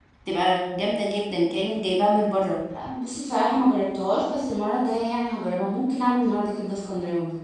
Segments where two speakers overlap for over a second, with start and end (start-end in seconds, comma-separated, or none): none